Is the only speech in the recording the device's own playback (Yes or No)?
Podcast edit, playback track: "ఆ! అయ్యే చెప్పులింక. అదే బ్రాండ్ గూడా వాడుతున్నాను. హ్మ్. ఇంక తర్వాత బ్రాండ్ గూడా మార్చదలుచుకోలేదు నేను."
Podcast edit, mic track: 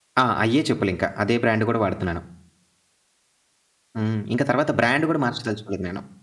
Yes